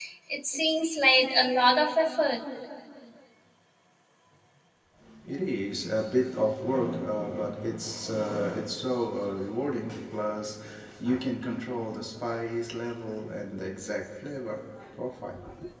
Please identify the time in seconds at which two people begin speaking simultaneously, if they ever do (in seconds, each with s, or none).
none